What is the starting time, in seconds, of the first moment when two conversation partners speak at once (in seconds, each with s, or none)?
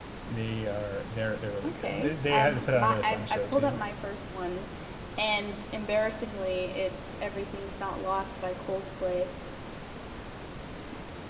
1.6 s